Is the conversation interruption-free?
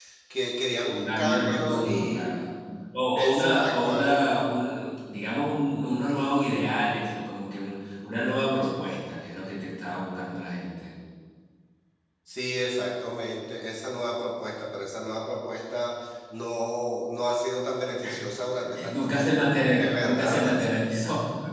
No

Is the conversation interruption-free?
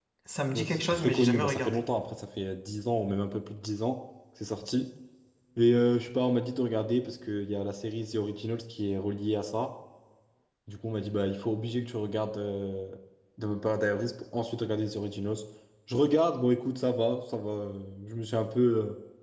No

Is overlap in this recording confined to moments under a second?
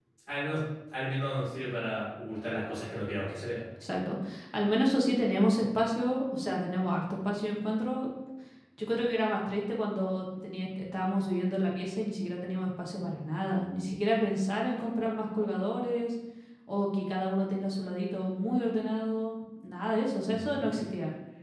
Yes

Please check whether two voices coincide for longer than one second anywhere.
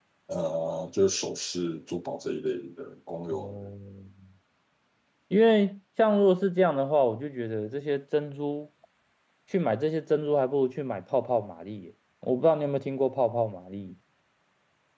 No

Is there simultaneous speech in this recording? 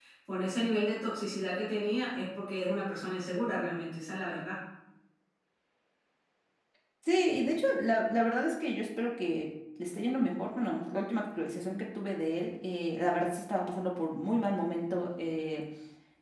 No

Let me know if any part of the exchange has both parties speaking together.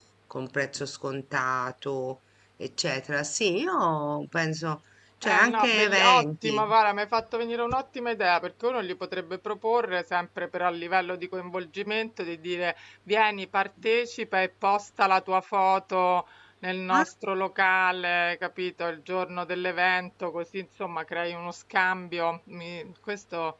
Yes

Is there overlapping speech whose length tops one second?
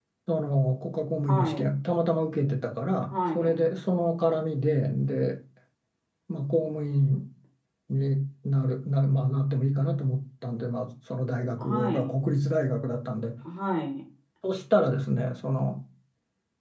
No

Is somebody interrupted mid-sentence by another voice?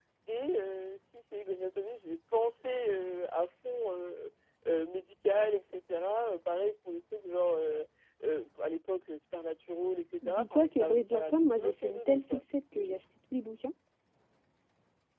Yes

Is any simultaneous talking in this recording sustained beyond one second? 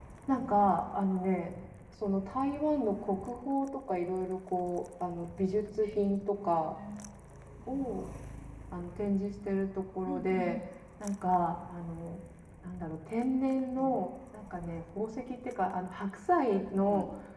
No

